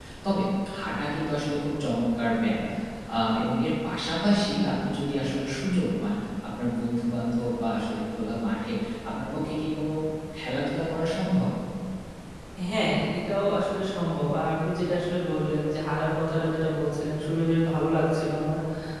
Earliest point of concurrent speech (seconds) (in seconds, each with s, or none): none